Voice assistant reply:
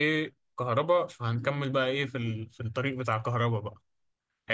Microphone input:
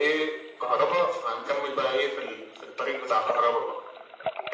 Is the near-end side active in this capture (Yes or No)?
No